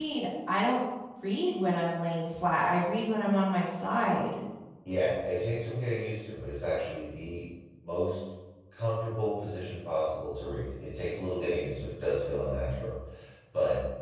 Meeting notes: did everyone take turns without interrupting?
Yes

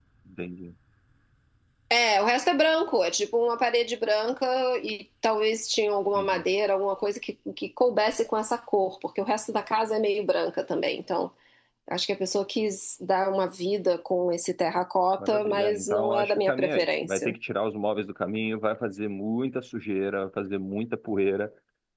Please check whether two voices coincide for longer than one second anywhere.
Yes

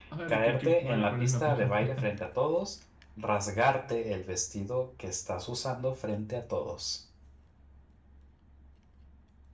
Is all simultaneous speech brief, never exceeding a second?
No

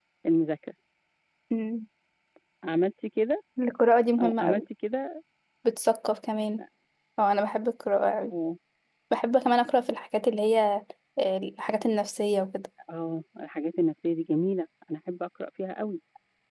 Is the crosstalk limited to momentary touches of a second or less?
Yes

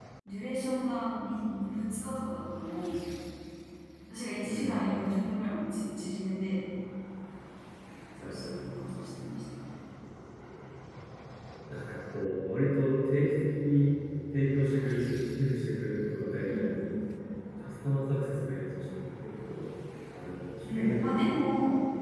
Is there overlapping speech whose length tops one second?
No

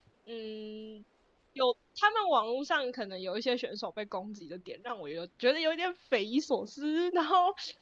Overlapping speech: No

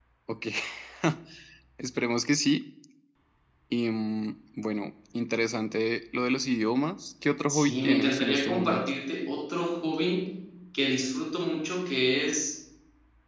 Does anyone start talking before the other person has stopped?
Yes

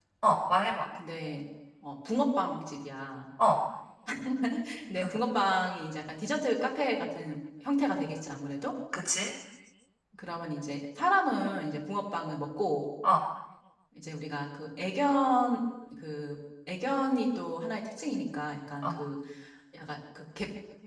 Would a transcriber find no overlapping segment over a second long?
Yes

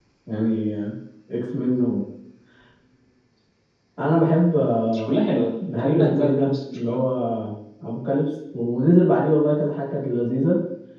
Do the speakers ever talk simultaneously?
Yes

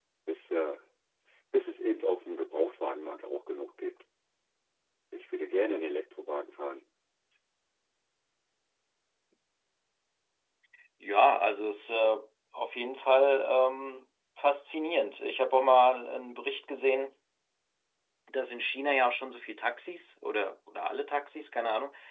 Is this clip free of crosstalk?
Yes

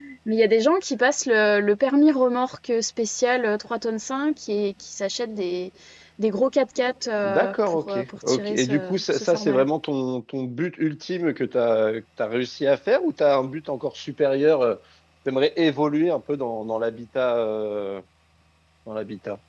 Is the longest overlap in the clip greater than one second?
Yes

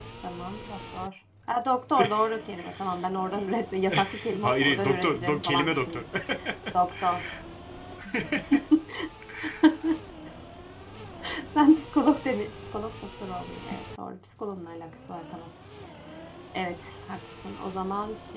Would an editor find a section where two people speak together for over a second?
Yes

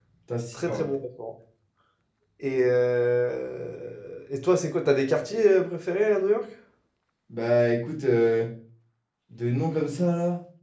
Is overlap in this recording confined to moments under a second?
Yes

